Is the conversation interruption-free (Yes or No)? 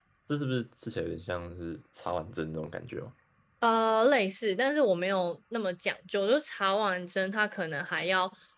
Yes